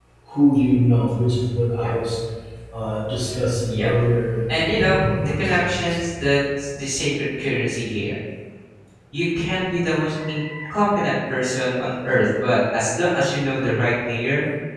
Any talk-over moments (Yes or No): Yes